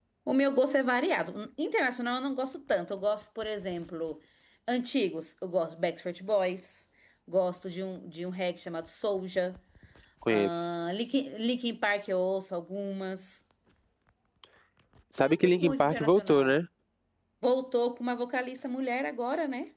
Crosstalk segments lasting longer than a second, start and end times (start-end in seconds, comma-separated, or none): 15.2-16.5